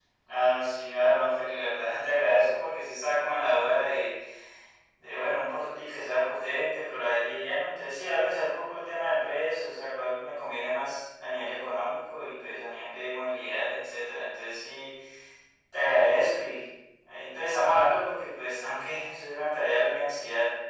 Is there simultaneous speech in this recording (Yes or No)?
No